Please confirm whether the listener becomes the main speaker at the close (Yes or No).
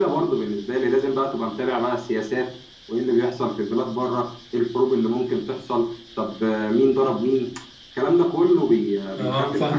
Yes